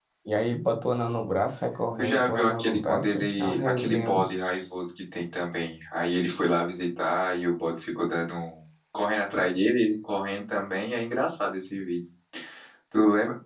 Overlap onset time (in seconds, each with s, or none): 2.0 s